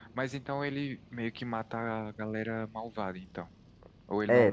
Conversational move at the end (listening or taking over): taking over